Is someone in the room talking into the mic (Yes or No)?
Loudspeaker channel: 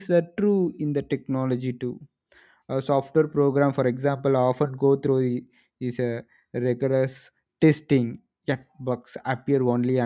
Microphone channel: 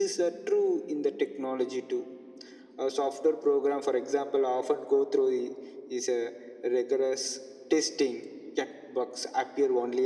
No